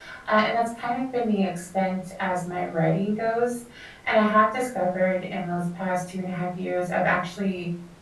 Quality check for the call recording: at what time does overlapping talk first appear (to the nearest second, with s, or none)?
none